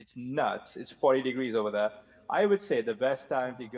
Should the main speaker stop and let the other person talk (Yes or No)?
No